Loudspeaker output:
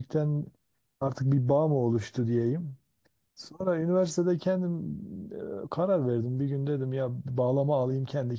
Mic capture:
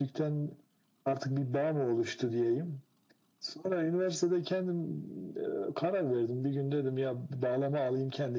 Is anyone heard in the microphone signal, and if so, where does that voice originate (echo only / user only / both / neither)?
echo only